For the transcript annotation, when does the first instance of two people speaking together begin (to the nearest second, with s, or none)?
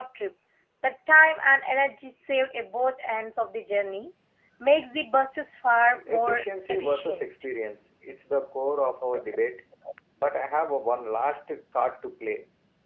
6 s